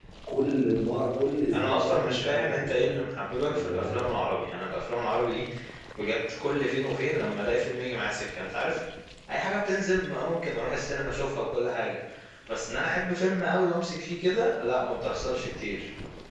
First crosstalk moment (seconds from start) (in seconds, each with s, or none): 1.5 s